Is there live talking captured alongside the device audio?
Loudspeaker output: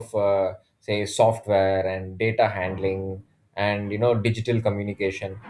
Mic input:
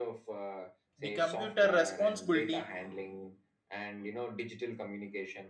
Yes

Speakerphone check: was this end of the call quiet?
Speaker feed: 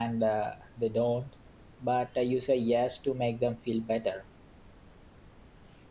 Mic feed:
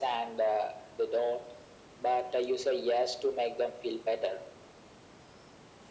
Yes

